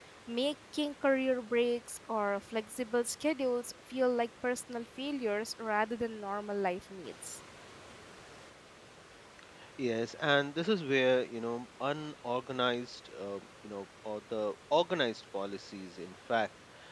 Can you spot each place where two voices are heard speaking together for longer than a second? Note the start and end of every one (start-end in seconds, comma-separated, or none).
none